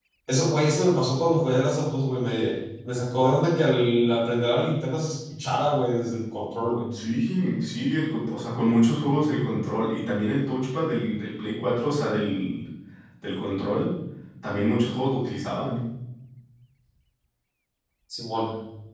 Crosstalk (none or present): none